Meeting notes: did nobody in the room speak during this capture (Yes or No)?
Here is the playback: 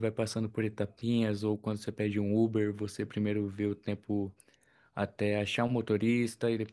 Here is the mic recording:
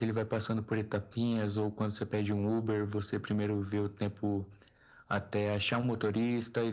Yes